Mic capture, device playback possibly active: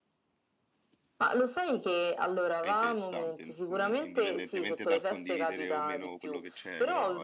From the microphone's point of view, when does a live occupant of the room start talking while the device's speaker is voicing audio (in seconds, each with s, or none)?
2.6 s